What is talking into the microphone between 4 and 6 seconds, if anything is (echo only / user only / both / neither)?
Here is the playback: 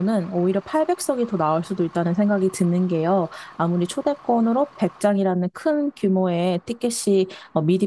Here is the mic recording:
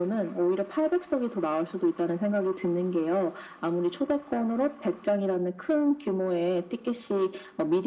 echo only